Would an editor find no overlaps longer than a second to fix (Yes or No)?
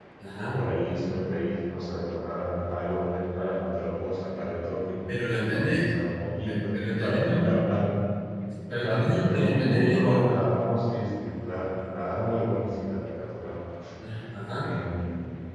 No